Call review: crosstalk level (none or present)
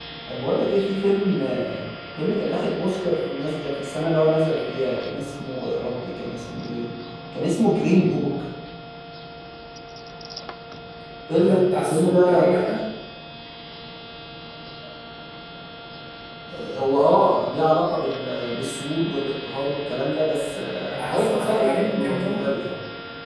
present